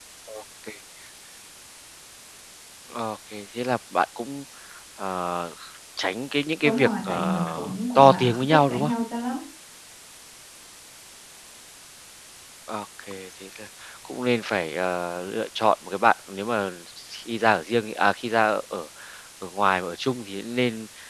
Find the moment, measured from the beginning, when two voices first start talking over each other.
6.6 s

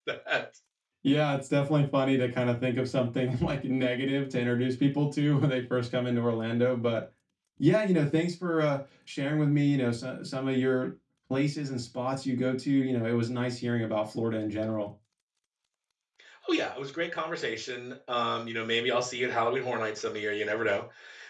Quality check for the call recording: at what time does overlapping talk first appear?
none

